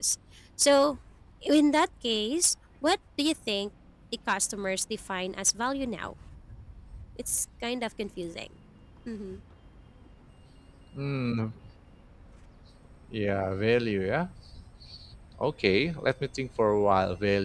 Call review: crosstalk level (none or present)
none